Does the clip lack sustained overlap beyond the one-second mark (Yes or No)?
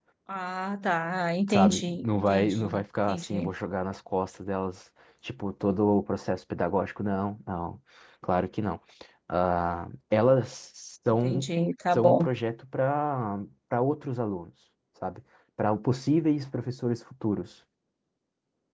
No